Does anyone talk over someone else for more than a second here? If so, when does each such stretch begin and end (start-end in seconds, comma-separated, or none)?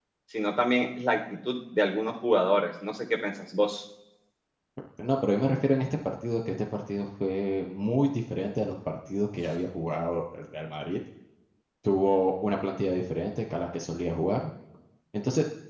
none